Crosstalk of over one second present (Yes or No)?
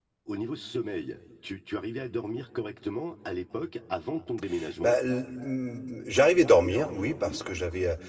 No